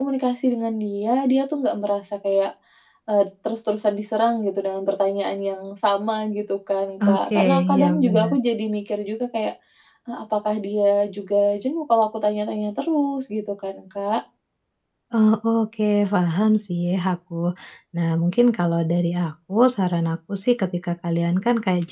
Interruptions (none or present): present